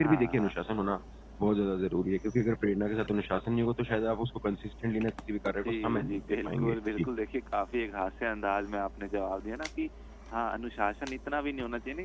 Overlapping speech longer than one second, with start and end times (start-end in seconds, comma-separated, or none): 5.6-7.1